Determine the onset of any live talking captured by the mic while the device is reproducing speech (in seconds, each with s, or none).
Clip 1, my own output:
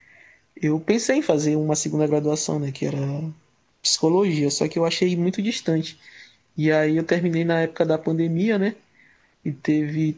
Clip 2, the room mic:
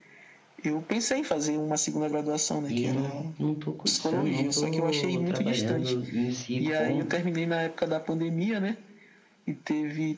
2.7 s